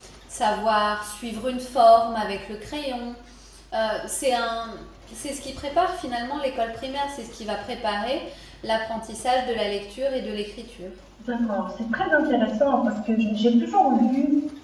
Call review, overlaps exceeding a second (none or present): none